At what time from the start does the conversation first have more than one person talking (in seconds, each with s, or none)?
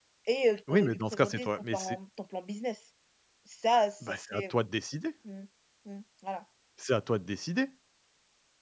0.7 s